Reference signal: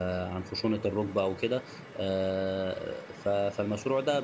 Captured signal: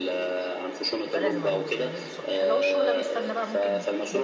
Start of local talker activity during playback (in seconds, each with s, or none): 1.1 s